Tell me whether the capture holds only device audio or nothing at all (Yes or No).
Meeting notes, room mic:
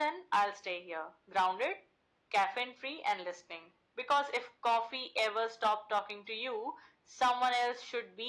Yes